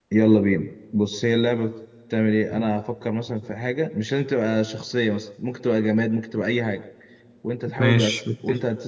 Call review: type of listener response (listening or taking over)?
listening